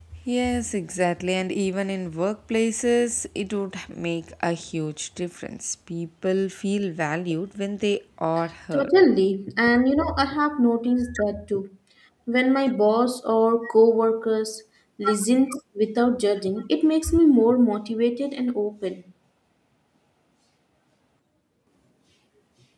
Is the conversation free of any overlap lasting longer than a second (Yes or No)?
Yes